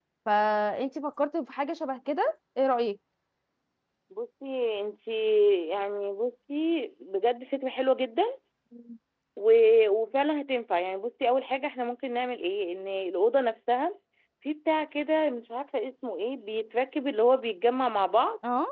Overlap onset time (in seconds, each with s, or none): none